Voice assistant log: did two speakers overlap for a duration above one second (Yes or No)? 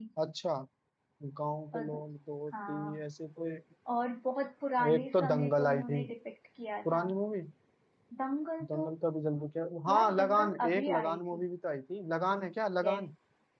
Yes